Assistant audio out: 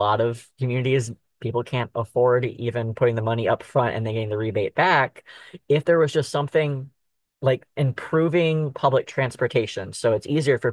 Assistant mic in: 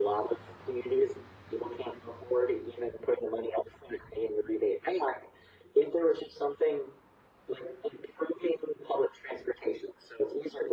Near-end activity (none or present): none